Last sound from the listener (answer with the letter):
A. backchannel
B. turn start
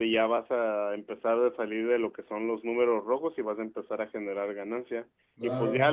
A